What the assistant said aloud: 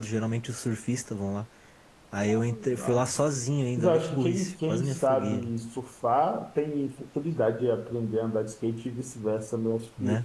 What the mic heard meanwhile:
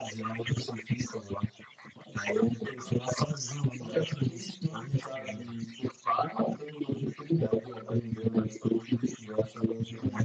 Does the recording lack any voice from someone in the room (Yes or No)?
Yes